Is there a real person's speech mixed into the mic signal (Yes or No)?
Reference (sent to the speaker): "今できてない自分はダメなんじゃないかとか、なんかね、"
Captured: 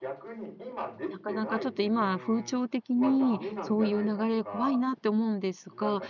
Yes